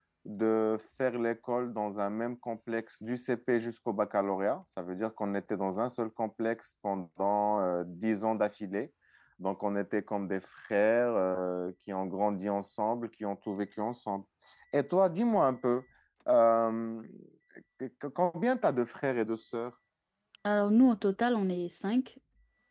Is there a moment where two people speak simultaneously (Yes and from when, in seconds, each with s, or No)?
No